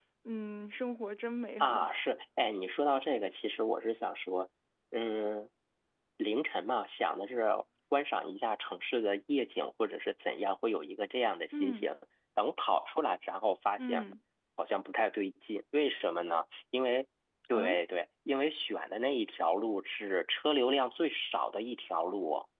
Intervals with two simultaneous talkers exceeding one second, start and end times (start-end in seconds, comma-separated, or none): none